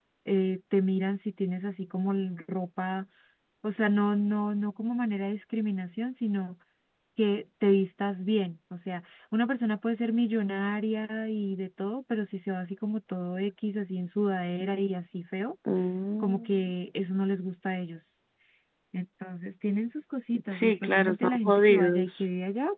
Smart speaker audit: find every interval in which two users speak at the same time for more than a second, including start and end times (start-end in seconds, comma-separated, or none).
20.5-22.3